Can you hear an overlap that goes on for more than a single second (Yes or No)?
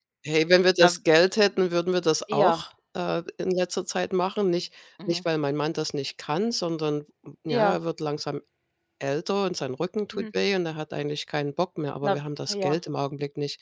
No